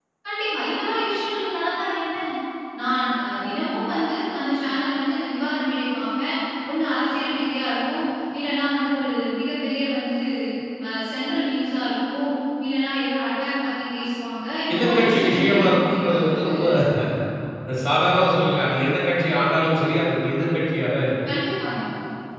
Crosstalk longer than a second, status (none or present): present